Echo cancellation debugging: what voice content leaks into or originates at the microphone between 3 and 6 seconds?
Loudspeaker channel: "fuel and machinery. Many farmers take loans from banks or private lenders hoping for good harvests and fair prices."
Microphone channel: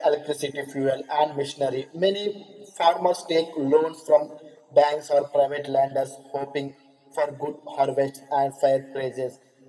echo only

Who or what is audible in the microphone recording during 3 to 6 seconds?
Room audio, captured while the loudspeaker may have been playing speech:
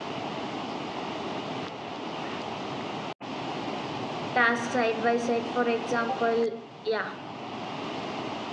user only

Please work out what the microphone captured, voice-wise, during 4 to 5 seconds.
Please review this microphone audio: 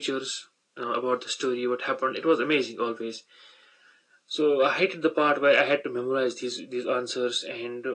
echo only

